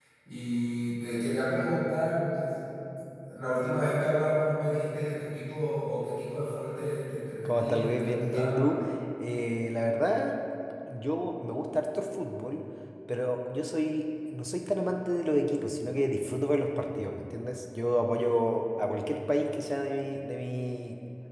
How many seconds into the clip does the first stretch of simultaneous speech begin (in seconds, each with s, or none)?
7.5 s